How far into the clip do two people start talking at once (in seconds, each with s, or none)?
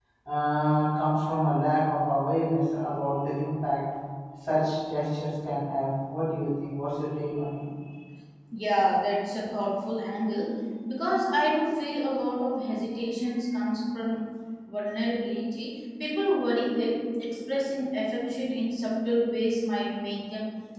none